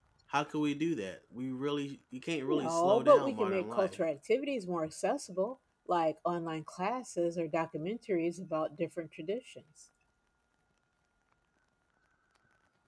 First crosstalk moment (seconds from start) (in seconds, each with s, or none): 2.5 s